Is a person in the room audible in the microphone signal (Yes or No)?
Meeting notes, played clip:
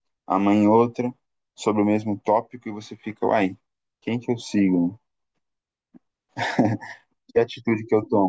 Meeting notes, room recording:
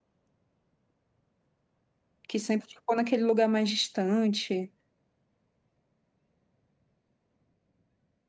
Yes